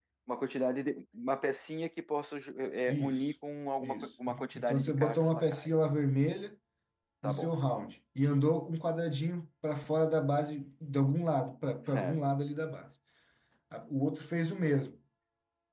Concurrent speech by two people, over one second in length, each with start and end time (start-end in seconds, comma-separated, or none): 3.8-5.7